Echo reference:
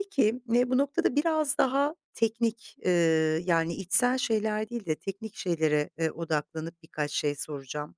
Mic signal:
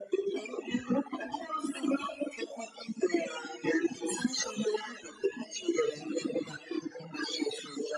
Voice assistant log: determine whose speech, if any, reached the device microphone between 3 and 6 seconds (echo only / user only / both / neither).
echo only